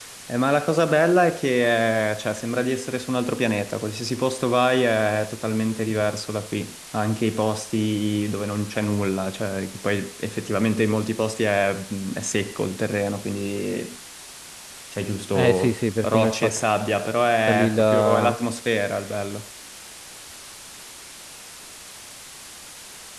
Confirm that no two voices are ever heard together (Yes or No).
No